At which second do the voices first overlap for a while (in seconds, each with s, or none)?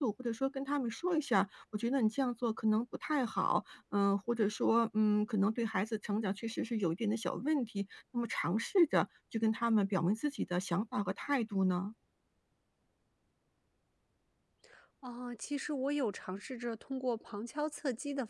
none